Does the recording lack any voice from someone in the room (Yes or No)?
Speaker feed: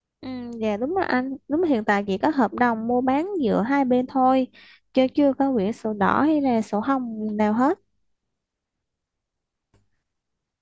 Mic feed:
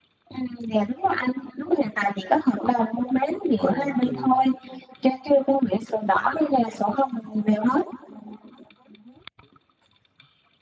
No